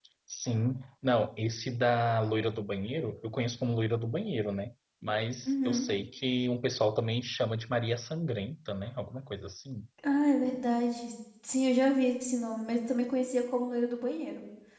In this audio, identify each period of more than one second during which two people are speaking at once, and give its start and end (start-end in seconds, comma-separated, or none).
none